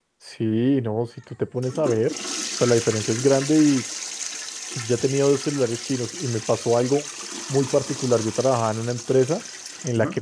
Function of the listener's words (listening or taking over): listening